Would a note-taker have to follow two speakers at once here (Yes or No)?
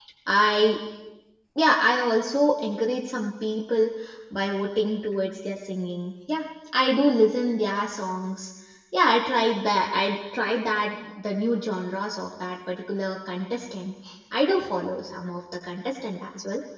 No